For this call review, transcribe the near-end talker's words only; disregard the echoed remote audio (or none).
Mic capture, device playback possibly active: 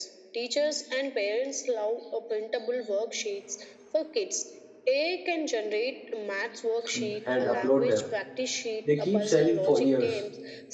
and upload them, they keep selling for years.